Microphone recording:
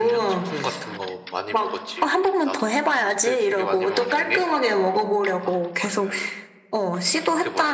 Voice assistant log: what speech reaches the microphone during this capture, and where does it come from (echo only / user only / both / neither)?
echo only